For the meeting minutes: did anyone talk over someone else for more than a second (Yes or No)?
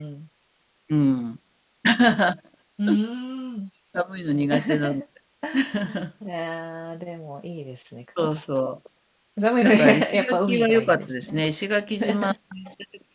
Yes